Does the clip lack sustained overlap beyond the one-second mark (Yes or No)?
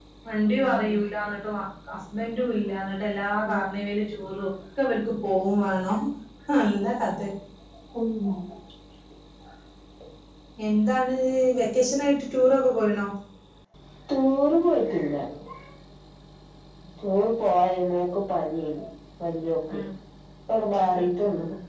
Yes